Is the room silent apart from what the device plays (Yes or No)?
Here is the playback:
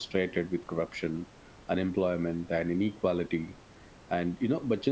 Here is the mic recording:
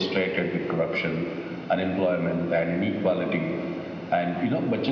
Yes